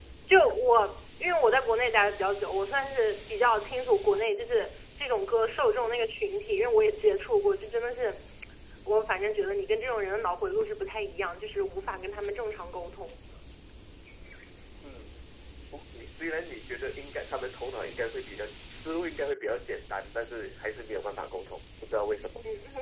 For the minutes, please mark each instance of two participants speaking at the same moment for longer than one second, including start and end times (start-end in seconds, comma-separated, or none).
none